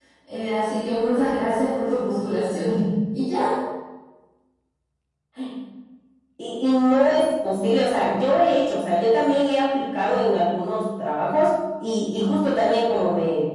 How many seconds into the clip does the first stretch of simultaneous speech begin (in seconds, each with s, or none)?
none